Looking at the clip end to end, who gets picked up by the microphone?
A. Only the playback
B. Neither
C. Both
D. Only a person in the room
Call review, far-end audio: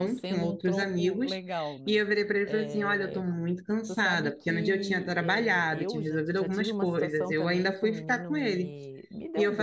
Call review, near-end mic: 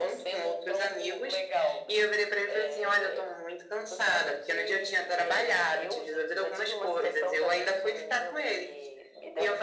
A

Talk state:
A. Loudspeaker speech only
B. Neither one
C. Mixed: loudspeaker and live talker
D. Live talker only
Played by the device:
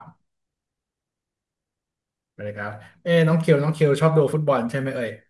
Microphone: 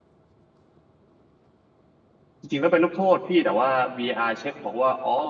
D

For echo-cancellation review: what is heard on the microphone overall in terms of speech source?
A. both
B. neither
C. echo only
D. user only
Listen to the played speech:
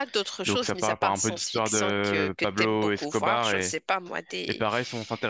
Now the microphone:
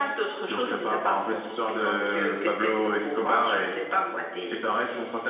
C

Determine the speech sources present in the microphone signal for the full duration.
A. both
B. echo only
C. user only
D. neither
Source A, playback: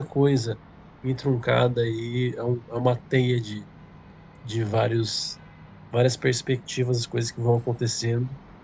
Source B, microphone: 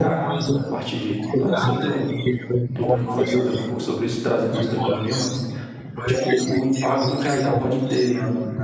A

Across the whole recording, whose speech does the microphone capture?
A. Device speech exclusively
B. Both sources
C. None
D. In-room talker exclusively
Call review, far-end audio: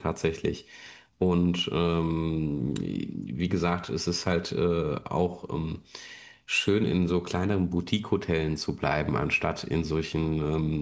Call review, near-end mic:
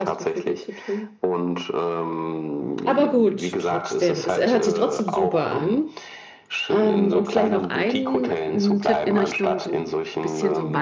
B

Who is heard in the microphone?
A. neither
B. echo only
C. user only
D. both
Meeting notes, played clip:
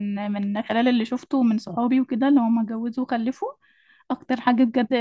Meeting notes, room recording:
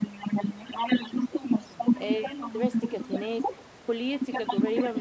D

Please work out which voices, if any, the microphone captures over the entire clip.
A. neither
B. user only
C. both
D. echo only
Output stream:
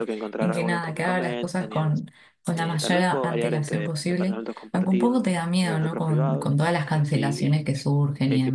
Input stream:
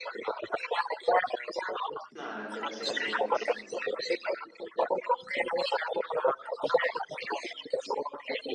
C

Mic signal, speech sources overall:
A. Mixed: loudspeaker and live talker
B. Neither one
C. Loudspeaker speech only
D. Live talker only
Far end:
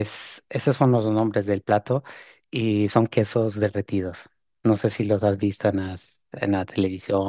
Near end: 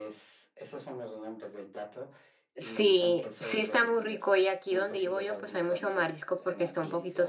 A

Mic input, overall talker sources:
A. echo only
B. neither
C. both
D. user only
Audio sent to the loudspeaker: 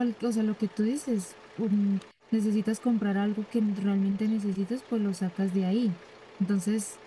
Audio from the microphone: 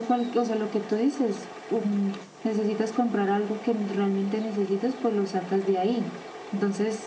A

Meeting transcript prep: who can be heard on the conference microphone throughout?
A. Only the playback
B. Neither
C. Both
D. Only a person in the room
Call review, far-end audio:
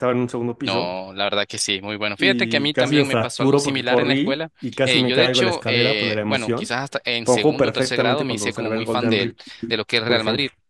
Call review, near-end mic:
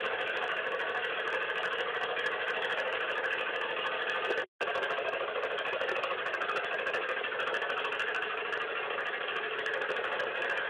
B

